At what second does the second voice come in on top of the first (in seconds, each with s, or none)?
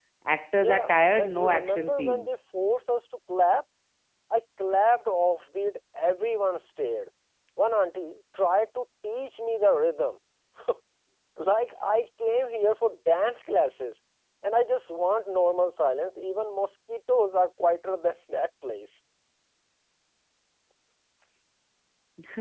0.6 s